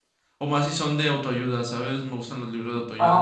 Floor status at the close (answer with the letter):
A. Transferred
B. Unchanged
A